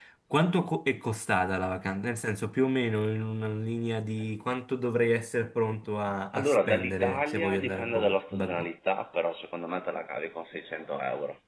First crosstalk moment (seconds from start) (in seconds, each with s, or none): 6.3 s